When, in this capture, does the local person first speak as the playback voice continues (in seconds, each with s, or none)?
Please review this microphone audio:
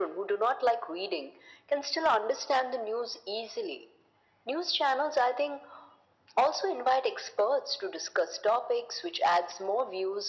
none